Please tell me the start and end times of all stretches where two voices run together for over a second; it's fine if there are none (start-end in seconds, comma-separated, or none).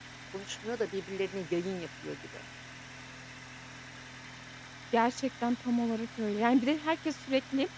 none